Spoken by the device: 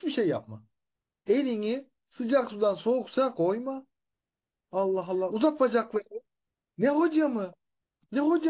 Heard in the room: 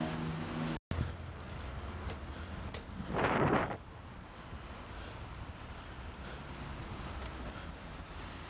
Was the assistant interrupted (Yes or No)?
No